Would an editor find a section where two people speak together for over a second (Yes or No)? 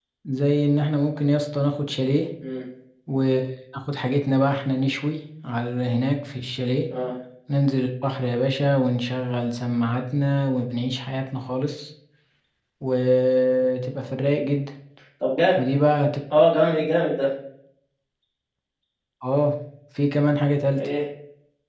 No